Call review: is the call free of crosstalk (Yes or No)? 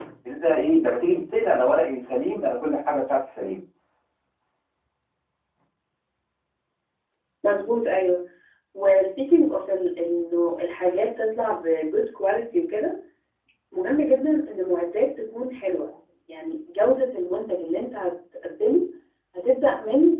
Yes